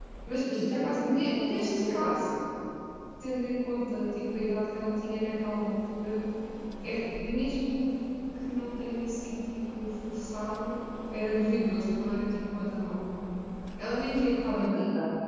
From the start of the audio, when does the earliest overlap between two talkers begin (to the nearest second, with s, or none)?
1 s